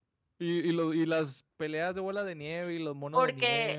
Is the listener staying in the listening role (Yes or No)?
No